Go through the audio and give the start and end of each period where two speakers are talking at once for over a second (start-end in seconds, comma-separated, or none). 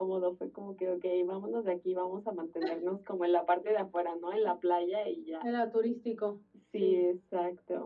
none